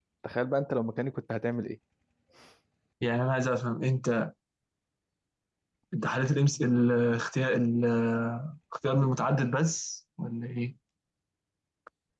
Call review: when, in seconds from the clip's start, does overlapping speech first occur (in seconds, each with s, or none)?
none